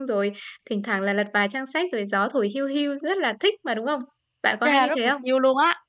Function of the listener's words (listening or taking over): taking over